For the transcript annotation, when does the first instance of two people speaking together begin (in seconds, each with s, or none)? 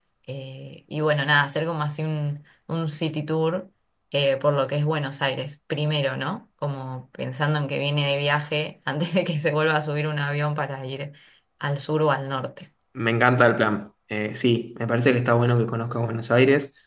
none